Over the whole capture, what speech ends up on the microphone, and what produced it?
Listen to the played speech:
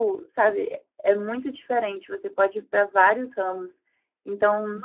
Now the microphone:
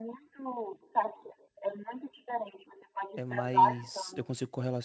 both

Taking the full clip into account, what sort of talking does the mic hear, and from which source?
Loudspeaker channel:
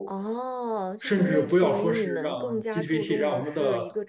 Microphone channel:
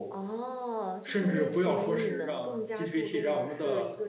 echo only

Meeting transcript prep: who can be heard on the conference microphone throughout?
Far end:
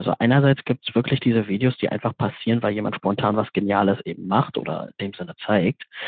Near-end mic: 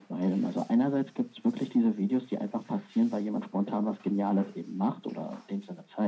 echo only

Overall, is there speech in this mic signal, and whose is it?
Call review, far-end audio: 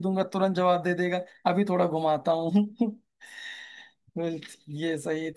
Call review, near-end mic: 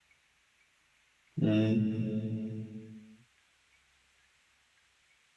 user only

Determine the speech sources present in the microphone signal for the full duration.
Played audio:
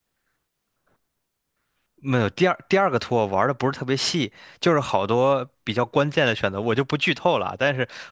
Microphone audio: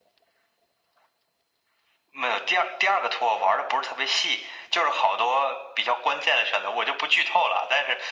echo only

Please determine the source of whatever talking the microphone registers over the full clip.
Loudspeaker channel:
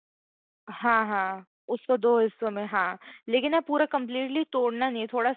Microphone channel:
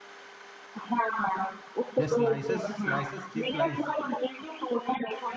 both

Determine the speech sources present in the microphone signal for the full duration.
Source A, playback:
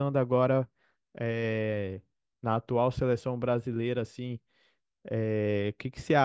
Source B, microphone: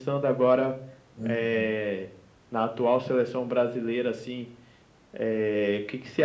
both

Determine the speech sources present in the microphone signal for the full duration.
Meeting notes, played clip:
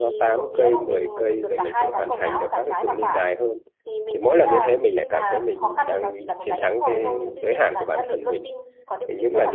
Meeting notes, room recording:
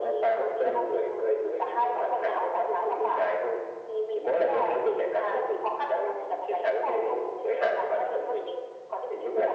echo only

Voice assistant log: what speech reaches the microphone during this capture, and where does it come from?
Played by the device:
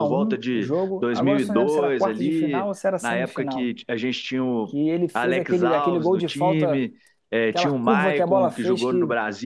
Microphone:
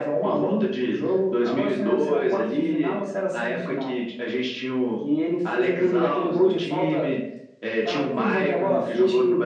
echo only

